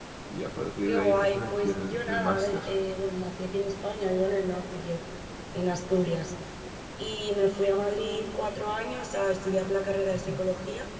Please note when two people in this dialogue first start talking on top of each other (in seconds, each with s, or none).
0.8 s